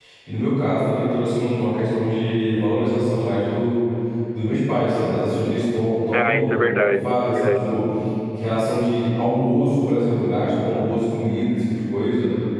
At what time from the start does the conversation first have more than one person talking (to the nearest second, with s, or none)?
6 s